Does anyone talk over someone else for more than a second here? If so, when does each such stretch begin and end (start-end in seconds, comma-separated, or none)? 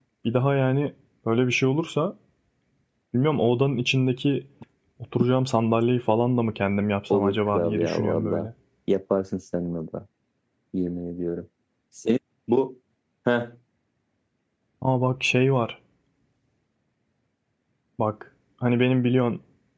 7.1-8.5